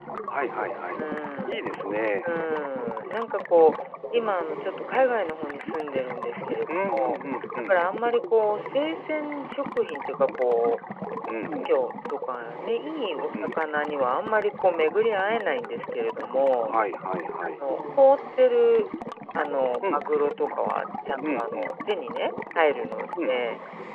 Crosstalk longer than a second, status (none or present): none